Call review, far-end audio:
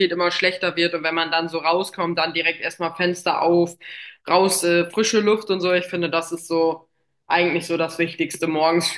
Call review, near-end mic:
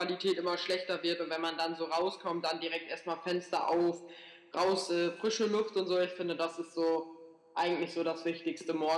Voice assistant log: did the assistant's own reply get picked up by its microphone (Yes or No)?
Yes